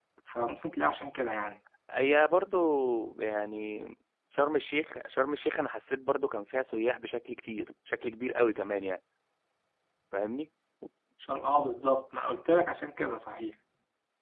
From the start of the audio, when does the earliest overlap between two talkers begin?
none

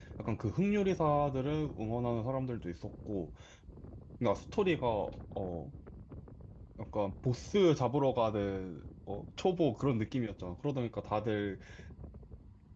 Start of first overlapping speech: none

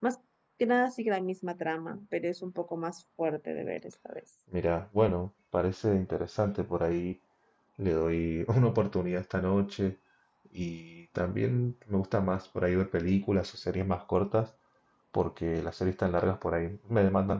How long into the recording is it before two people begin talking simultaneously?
none

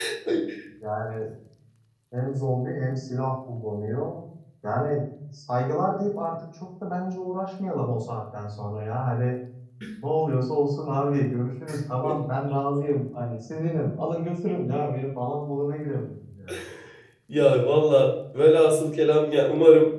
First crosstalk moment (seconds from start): none

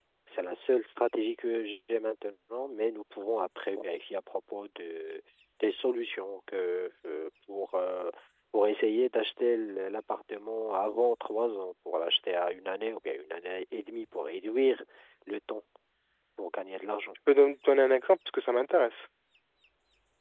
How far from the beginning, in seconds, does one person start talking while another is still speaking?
none

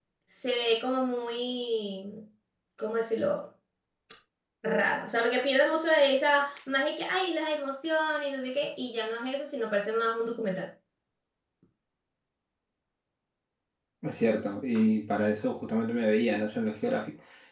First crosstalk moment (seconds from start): none

